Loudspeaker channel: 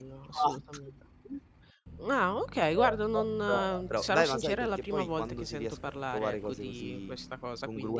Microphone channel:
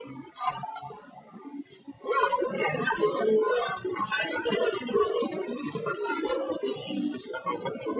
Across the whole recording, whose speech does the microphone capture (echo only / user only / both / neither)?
echo only